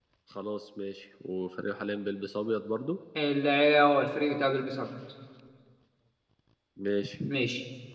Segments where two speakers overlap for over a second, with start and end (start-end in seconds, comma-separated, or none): none